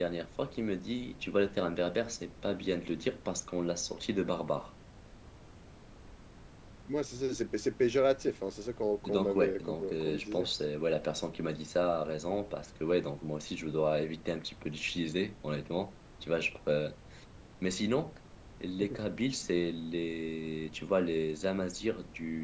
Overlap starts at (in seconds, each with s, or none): 9.1 s